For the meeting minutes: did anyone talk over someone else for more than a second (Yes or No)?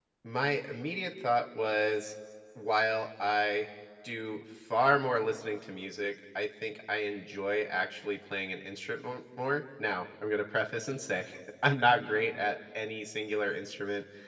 No